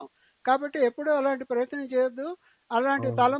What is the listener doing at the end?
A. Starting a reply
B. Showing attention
B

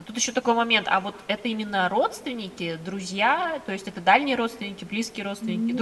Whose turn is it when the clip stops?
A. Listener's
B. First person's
A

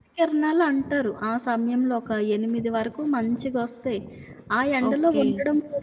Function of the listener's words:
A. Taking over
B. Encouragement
B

